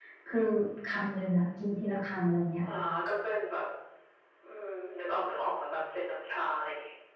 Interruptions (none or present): none